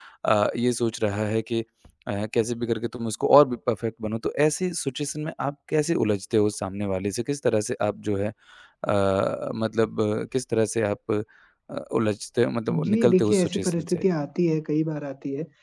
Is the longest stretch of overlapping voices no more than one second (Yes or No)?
No